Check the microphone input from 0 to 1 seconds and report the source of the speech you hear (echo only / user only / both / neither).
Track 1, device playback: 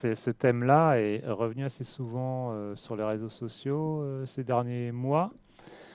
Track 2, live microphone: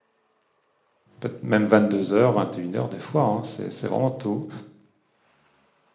neither